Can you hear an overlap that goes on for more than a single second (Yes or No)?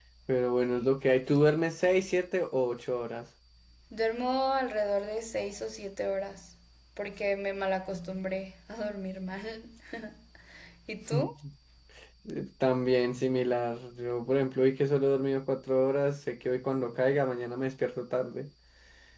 No